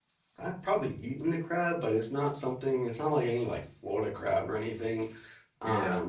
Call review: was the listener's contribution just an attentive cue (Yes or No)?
Yes